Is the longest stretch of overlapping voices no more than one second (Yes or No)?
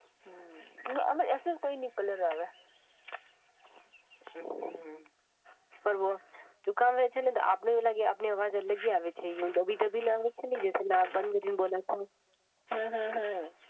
Yes